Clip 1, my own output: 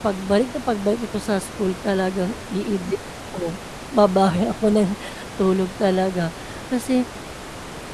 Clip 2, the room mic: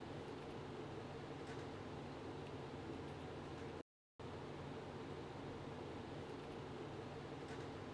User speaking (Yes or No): No